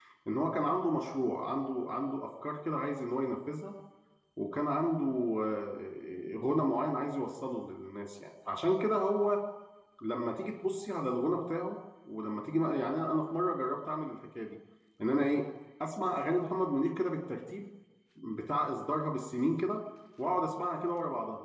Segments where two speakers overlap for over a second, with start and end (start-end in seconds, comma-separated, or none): none